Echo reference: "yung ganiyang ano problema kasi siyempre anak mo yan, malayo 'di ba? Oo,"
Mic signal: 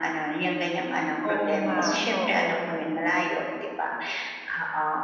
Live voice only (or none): Oo nga, oo.